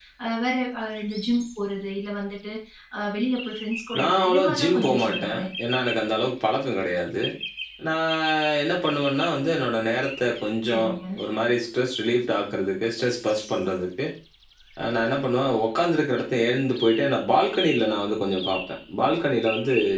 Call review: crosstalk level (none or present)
present